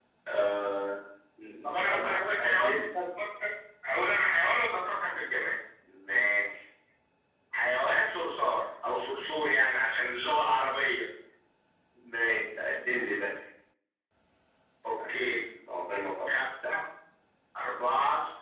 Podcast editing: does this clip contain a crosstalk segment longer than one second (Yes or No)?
Yes